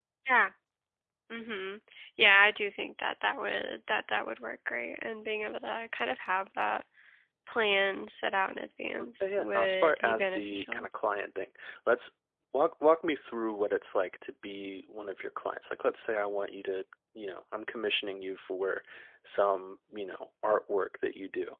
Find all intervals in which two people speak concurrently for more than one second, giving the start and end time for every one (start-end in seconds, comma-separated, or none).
9.2-10.9